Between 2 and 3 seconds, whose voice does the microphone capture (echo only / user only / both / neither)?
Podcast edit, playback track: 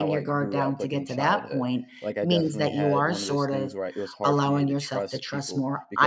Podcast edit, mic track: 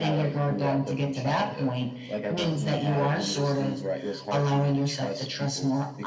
echo only